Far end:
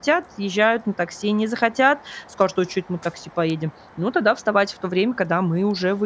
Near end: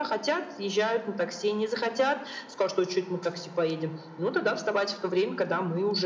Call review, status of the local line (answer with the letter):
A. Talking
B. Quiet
B